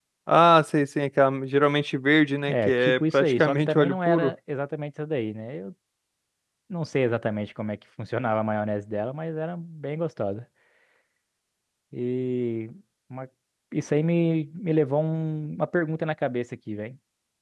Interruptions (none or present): present